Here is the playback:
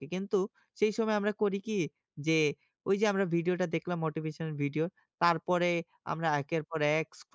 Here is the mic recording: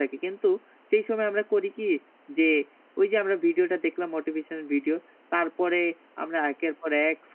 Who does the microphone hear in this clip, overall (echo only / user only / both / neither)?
echo only